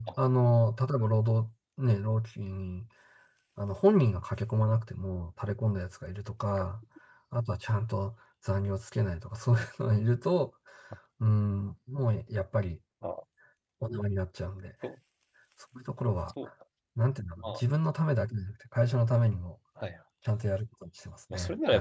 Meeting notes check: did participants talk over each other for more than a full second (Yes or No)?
No